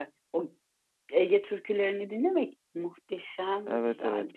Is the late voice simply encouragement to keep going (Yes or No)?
No